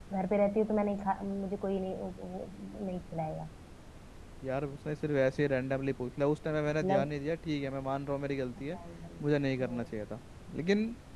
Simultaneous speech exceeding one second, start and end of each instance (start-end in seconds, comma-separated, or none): none